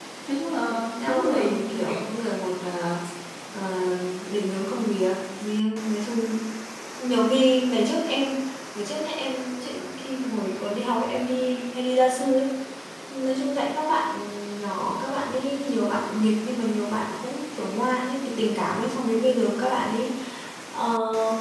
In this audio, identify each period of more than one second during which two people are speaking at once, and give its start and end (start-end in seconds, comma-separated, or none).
0.7-2.0